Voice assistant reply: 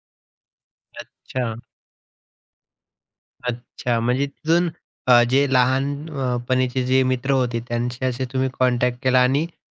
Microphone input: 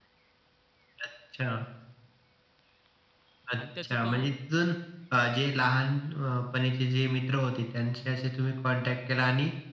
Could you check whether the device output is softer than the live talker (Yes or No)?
No